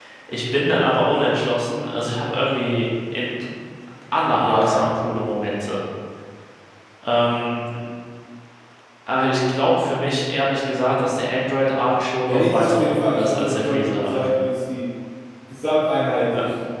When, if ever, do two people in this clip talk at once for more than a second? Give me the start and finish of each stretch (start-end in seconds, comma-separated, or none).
12.3-14.3